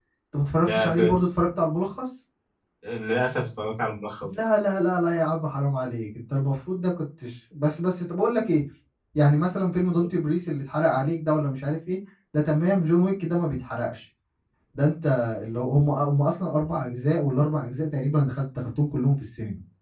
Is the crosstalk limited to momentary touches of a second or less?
Yes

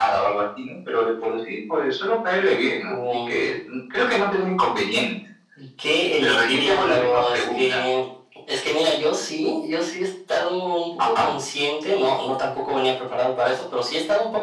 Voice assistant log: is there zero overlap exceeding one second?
No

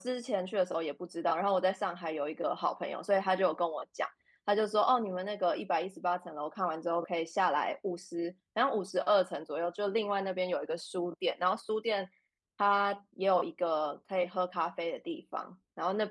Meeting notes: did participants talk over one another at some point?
No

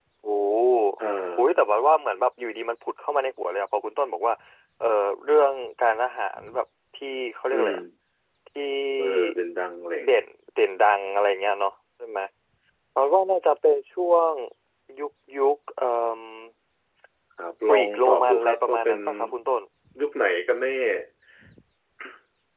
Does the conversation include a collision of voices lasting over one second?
Yes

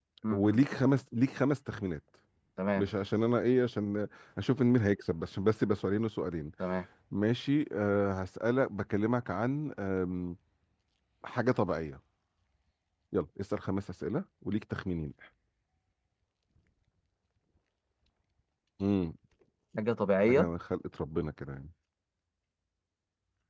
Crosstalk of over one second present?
No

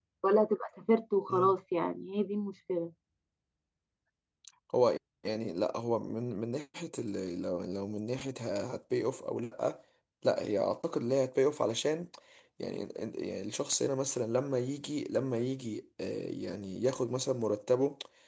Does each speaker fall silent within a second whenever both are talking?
Yes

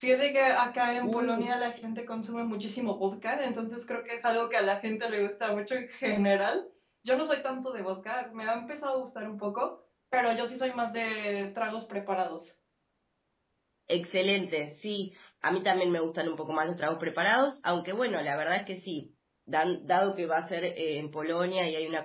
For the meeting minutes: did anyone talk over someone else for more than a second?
No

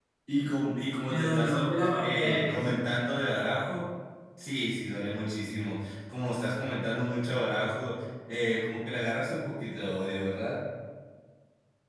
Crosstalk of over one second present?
Yes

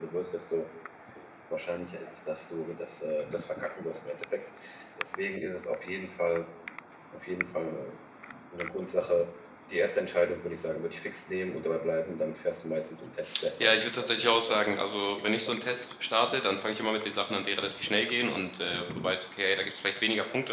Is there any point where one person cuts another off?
Yes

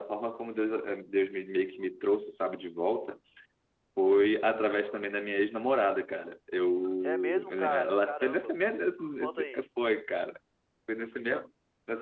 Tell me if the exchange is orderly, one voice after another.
No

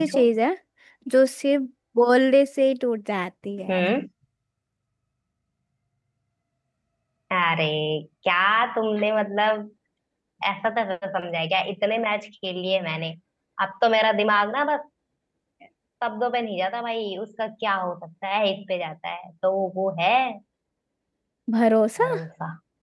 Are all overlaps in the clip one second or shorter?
Yes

